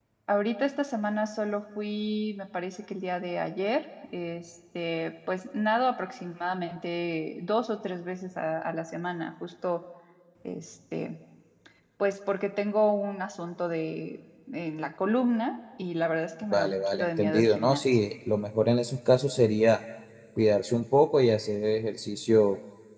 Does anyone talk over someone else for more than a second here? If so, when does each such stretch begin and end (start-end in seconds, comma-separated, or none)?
16.5-18.0